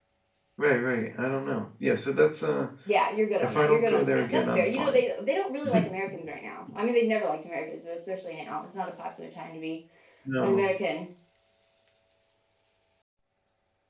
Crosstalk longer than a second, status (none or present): present